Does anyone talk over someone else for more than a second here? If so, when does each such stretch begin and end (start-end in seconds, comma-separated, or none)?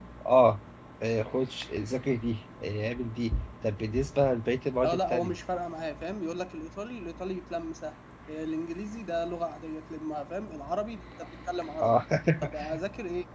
none